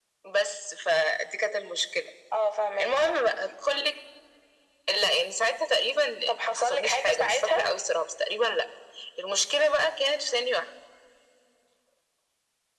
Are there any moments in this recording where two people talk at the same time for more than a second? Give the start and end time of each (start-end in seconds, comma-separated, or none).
6.4-7.7